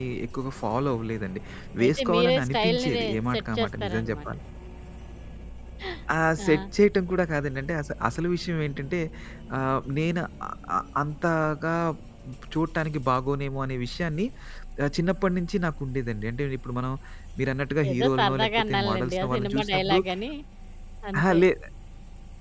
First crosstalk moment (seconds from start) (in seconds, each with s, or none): 1.8 s